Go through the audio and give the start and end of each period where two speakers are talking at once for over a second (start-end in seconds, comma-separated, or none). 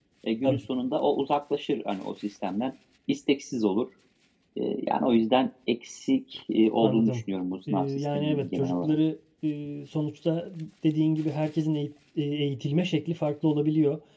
7.7-8.9